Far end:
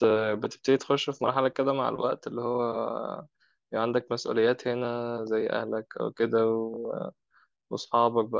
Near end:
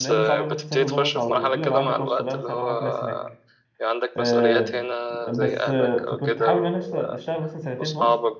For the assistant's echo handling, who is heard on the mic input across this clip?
both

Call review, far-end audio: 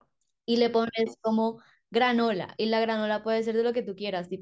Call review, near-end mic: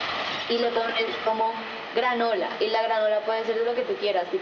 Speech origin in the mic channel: echo only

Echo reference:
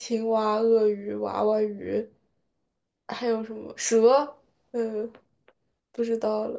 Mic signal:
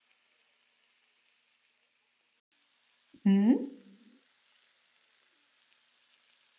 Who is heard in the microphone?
user only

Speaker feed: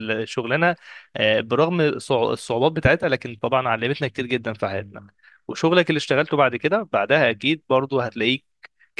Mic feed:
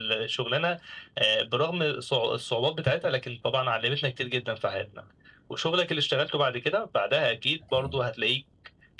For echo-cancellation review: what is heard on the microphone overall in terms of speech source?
both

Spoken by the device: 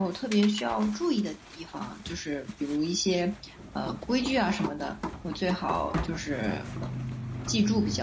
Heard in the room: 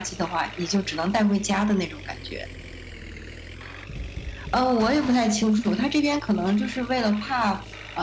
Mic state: user only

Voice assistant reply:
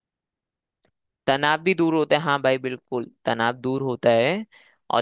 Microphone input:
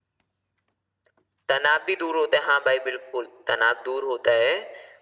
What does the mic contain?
echo only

